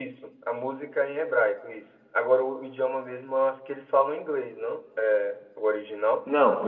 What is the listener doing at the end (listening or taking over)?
taking over